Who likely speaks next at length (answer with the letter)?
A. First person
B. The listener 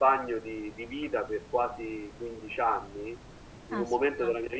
A